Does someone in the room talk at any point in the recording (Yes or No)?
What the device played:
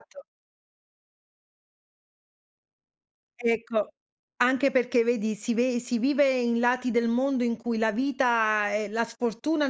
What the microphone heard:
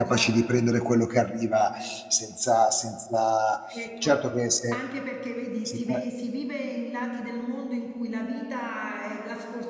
Yes